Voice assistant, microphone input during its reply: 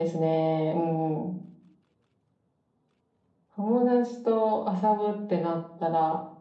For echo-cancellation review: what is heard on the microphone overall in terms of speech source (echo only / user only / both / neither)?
echo only